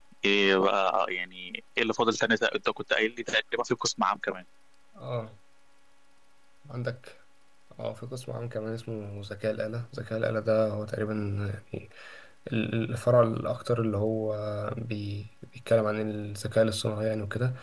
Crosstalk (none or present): none